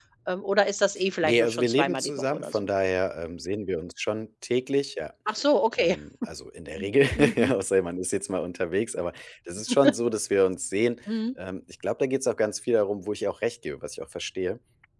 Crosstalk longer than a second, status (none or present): present